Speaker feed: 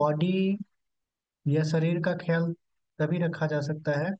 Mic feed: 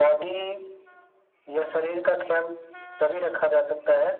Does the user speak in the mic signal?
No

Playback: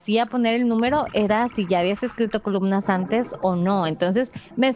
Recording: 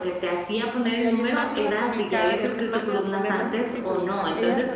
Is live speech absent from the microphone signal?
No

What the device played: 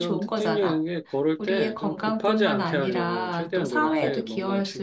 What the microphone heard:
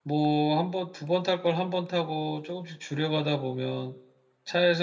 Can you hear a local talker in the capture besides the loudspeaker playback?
Yes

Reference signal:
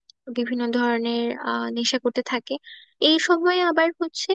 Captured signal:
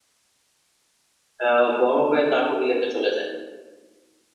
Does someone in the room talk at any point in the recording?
Yes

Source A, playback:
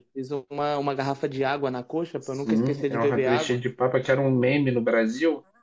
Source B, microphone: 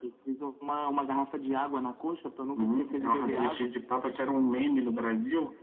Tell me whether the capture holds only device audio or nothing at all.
No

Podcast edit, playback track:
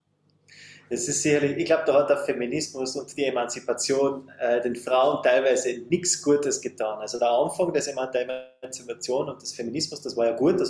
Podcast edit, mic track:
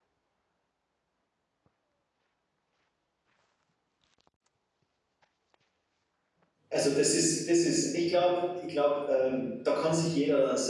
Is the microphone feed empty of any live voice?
No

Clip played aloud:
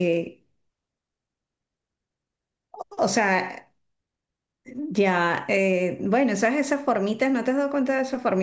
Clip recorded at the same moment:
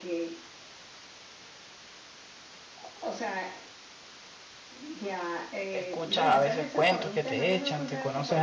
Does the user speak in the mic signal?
Yes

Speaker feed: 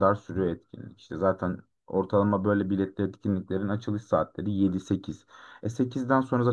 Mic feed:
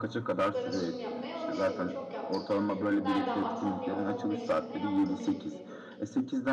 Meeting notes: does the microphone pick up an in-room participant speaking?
Yes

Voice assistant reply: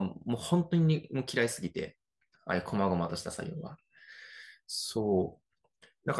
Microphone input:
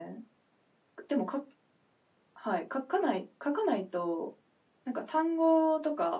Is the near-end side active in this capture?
Yes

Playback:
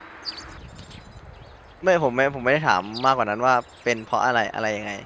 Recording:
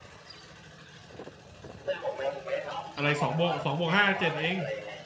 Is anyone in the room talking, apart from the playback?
Yes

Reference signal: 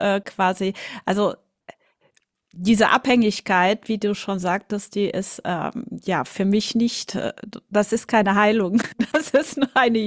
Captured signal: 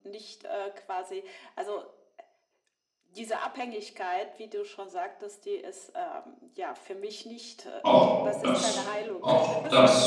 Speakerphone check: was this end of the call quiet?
No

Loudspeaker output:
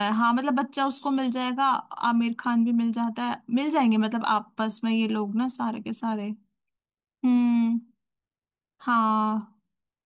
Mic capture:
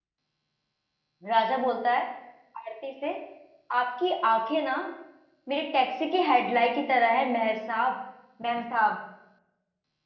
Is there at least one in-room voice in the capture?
Yes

